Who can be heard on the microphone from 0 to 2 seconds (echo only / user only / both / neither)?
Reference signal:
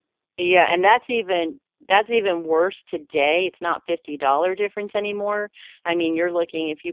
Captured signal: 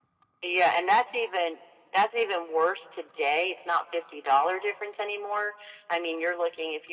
echo only